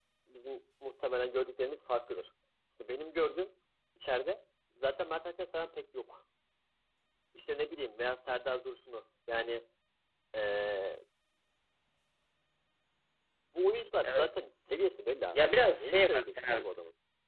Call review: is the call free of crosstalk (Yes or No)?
No